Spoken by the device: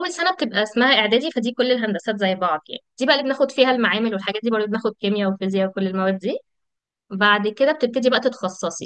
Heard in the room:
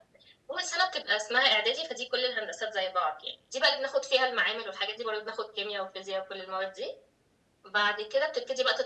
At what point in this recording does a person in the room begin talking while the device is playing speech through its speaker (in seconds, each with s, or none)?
none